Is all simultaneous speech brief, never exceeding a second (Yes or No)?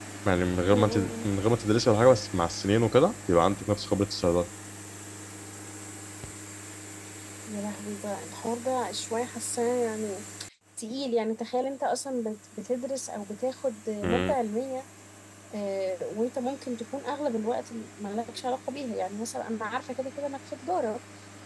Yes